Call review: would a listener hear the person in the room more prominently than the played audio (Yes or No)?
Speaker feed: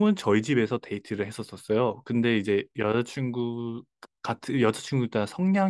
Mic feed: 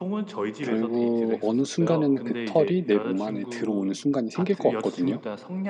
Yes